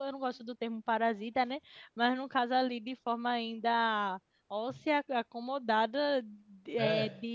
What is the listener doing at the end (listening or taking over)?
listening